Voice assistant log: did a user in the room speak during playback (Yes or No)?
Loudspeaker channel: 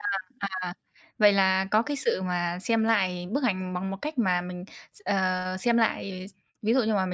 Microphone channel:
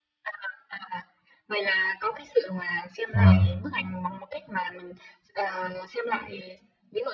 Yes